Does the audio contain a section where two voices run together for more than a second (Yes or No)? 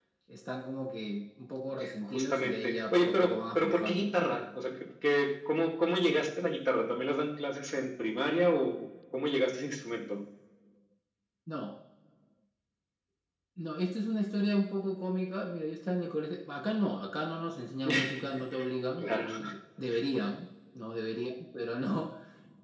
Yes